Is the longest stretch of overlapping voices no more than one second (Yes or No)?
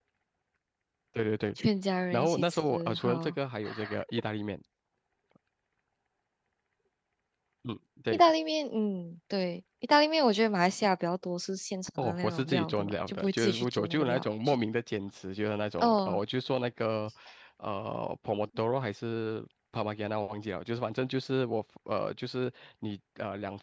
No